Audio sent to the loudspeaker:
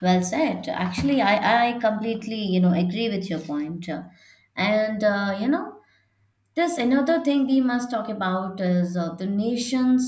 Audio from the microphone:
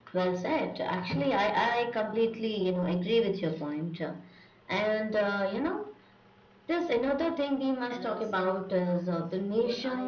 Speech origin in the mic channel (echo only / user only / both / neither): both